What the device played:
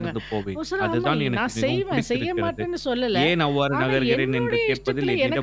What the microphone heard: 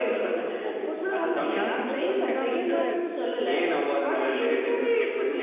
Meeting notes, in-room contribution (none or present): present